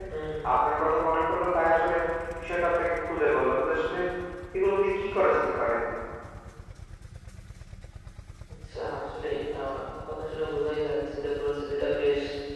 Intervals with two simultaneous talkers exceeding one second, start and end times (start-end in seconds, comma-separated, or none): none